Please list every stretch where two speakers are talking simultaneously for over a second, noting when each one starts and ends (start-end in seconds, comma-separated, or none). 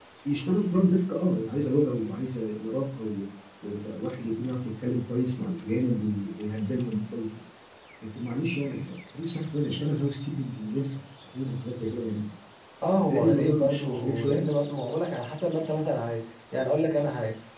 12.9-14.4